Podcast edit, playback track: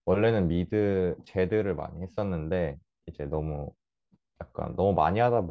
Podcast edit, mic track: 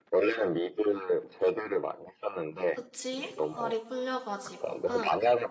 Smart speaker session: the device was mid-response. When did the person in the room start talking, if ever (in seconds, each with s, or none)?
2.7 s